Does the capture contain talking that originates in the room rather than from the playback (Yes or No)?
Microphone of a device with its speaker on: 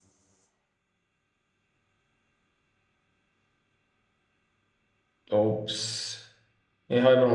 Yes